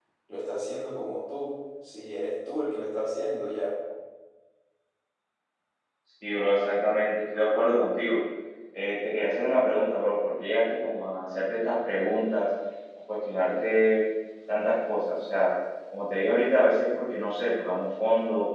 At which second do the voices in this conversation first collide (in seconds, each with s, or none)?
none